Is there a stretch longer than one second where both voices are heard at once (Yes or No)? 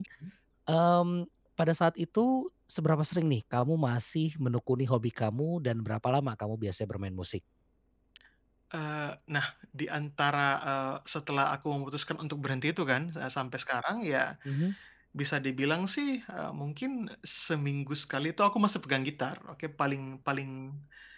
No